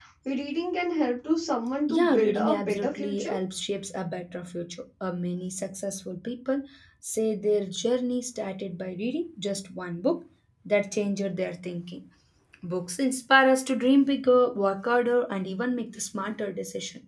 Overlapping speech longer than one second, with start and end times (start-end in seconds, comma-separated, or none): 1.9-3.3